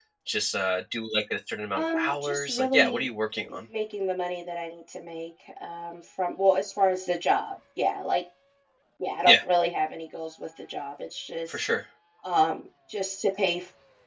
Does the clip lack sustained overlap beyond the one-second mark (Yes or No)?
No